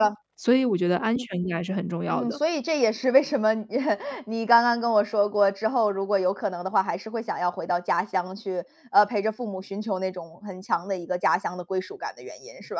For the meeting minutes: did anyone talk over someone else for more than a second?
No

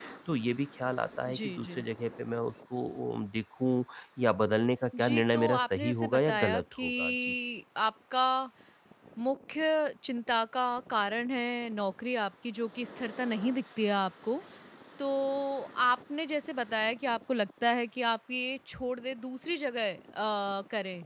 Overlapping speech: Yes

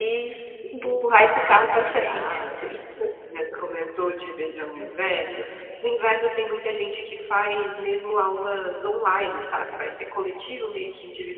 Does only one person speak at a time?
No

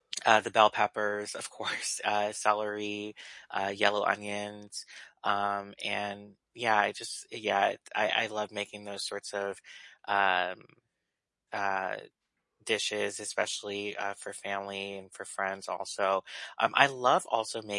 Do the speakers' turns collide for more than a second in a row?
No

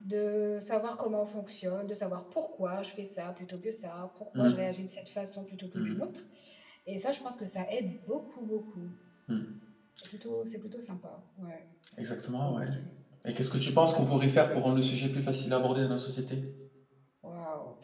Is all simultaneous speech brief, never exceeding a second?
Yes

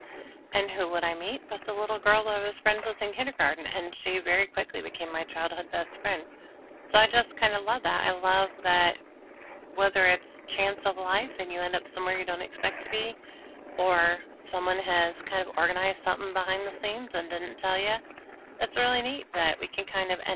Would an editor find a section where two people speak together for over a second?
No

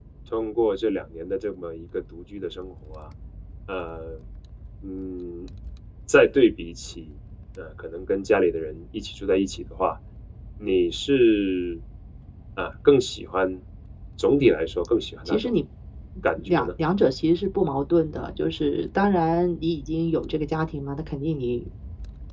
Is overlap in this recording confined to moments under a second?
Yes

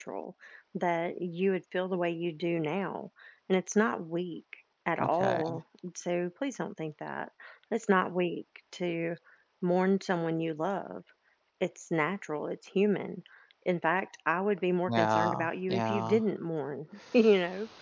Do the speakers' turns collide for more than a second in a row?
Yes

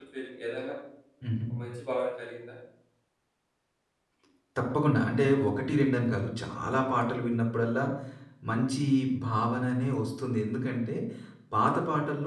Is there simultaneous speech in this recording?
No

